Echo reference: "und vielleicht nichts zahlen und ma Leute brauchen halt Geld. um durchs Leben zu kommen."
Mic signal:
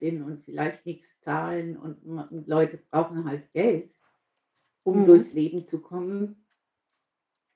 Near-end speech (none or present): present